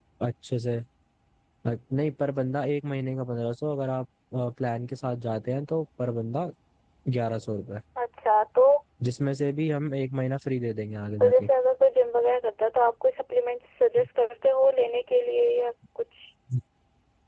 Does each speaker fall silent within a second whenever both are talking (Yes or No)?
Yes